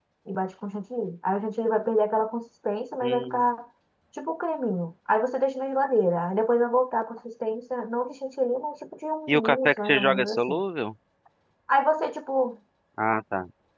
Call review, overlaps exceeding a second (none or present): present